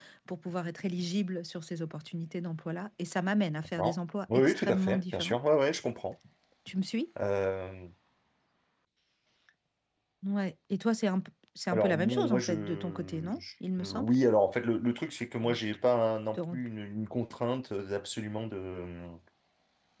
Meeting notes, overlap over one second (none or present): present